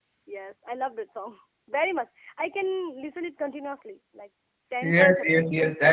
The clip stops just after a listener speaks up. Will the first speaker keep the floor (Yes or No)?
No